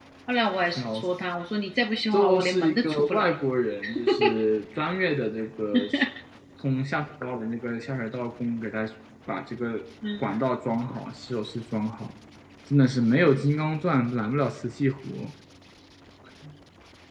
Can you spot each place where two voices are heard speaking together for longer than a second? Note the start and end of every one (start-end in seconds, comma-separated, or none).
2.1-3.3